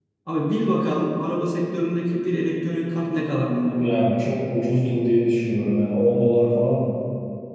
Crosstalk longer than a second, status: none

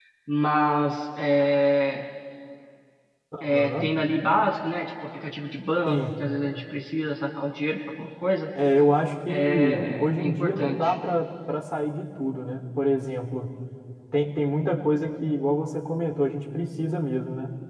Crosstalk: present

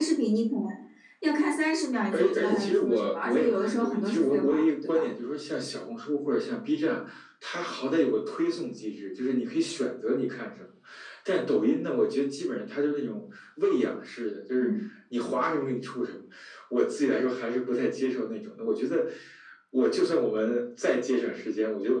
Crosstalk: present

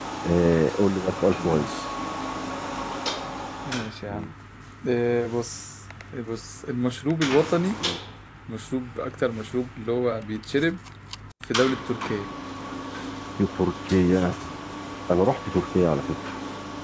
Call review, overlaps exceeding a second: none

